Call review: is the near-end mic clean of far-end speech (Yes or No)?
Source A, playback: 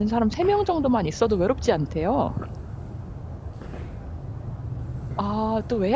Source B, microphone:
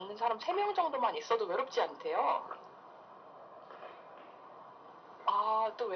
No